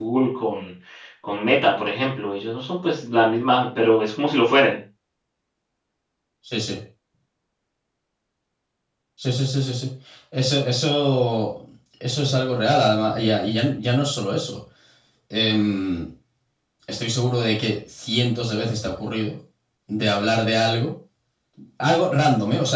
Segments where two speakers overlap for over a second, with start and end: none

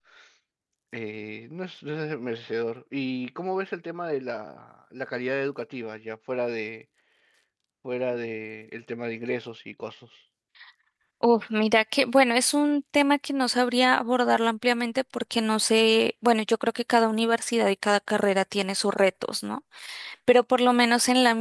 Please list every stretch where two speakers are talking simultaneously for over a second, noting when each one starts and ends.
none

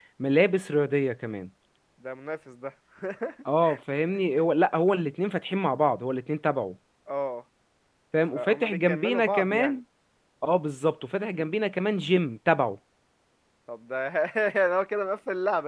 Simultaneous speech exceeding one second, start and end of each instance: 8.3-9.8

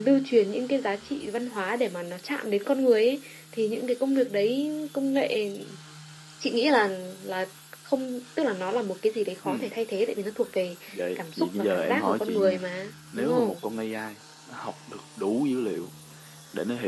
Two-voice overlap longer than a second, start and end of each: 11.2-12.6

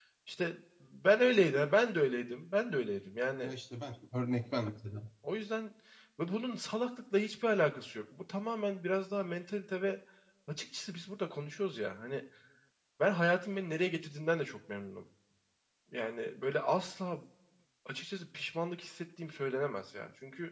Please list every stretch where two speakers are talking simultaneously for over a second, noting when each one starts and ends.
none

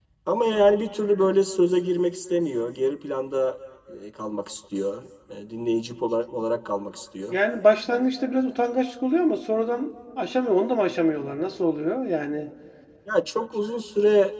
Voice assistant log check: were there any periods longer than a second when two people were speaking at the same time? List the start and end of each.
none

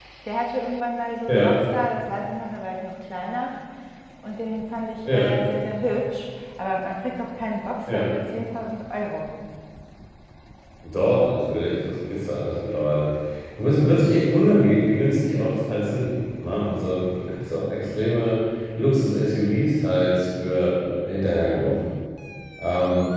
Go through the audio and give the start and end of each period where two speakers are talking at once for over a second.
none

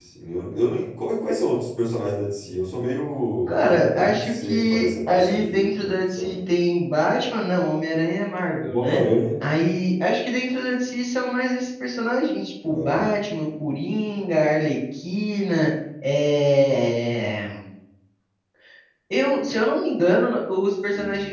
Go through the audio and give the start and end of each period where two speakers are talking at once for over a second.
3.5-6.4

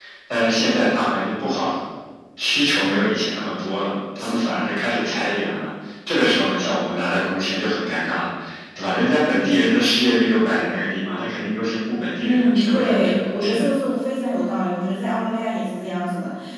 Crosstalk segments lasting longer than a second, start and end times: 12.2-13.7

